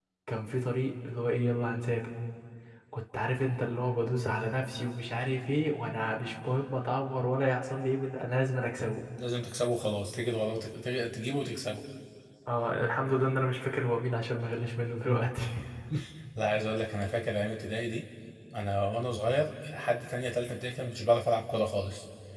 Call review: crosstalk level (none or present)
none